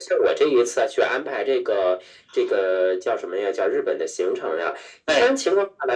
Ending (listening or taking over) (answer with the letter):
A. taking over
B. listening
B